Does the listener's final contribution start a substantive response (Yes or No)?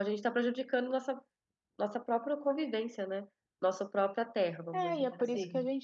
Yes